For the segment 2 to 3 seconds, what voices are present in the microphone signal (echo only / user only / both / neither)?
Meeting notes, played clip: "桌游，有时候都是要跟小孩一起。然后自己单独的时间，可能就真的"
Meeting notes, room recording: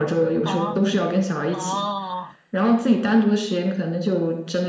both